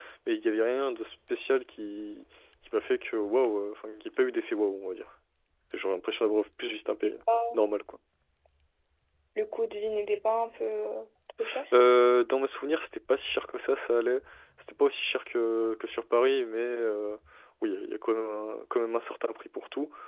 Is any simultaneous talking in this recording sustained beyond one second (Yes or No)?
No